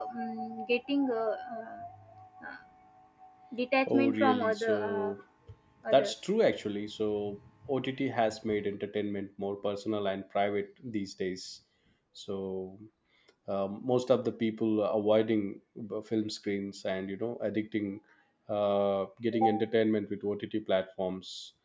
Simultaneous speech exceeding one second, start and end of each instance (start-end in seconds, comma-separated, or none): 3.9-5.1